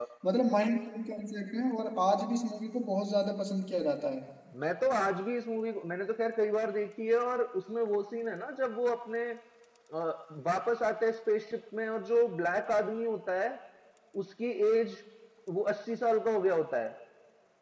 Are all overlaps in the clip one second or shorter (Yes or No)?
Yes